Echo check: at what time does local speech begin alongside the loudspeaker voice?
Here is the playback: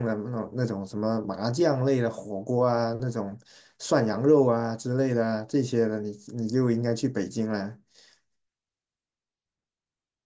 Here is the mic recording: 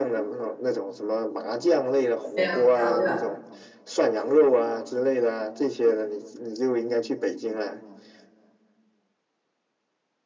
2 s

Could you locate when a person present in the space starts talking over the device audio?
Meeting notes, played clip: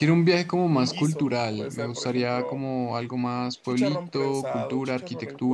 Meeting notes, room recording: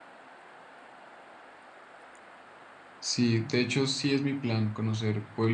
3 s

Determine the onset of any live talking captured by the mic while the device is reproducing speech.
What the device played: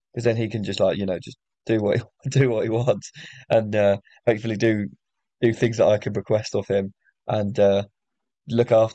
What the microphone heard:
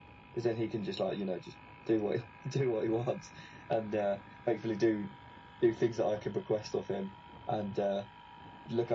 none

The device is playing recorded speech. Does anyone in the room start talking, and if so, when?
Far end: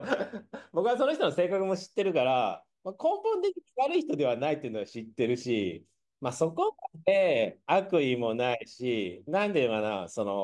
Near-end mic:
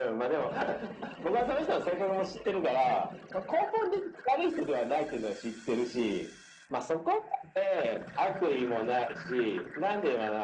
none

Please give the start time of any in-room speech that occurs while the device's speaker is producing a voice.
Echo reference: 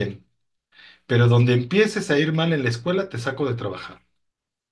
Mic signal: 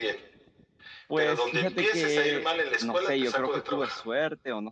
1 s

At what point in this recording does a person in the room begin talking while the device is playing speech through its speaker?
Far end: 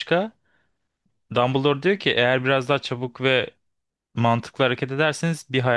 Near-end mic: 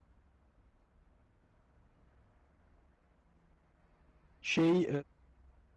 4 s

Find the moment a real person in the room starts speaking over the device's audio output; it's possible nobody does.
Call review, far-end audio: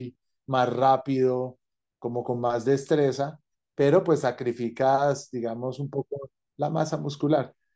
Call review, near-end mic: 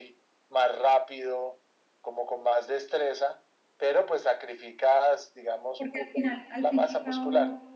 6 s

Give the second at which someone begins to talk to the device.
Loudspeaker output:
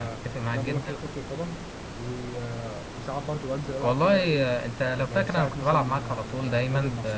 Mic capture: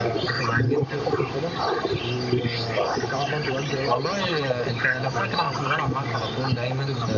none

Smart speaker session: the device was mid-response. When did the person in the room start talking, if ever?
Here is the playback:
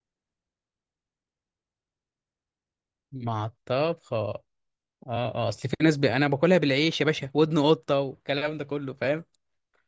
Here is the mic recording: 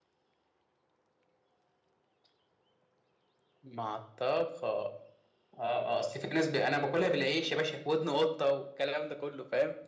none

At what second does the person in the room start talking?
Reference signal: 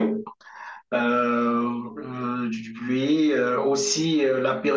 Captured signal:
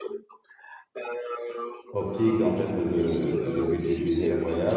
2 s

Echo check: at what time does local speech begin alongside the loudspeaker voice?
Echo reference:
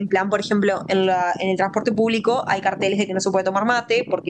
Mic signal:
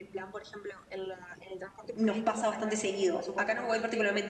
2 s

